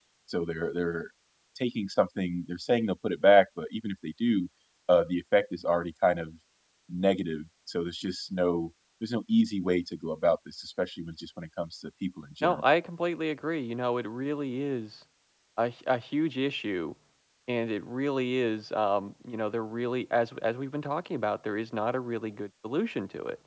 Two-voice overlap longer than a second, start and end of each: none

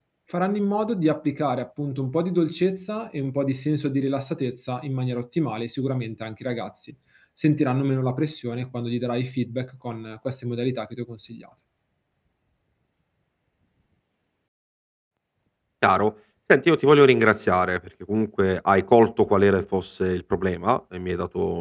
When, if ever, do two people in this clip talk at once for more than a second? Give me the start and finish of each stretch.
none

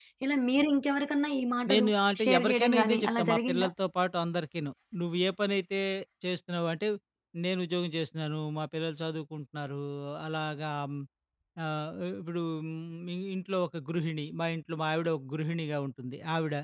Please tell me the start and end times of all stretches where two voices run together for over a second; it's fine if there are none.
2.2-3.7

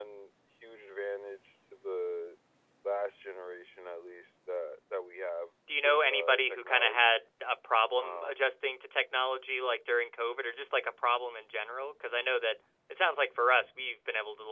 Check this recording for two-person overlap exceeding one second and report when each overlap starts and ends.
5.8-7.2

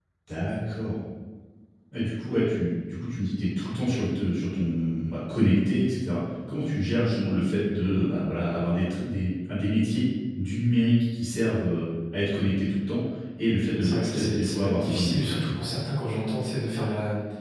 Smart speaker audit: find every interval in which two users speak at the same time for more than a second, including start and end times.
13.8-15.6

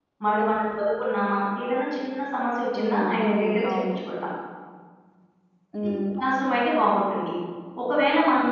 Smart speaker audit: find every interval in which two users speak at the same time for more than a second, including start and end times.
2.8-4.0

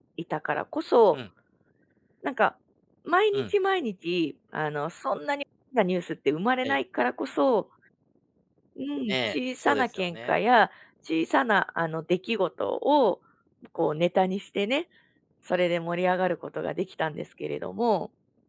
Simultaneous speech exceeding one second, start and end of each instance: 9.1-10.3

